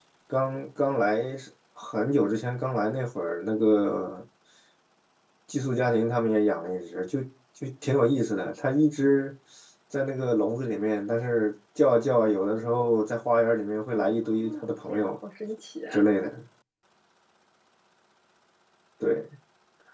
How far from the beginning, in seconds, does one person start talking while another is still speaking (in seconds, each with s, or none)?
13.9 s